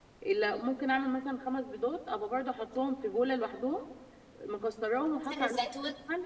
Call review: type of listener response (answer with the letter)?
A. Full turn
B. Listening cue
B